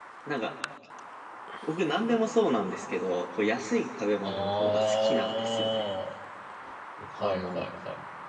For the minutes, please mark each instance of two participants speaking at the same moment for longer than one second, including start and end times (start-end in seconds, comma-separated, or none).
4.2-5.9